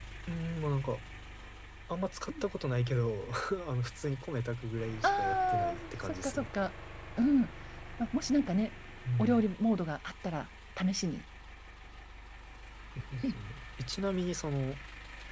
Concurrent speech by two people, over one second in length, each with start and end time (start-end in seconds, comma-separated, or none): 5.0-6.5